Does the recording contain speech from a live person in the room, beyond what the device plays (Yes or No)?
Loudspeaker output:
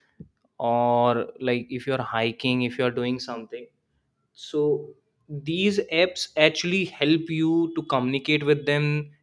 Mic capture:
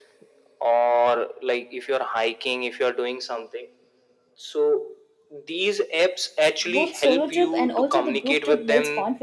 Yes